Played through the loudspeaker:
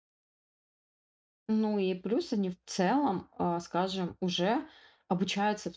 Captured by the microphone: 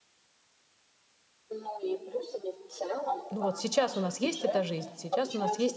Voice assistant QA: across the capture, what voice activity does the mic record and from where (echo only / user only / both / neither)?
both